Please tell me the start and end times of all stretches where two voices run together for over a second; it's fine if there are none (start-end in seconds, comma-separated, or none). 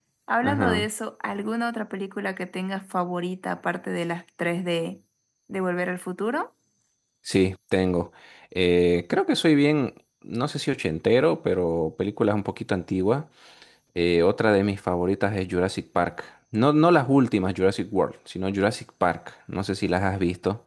none